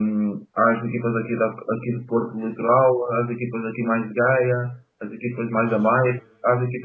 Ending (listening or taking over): listening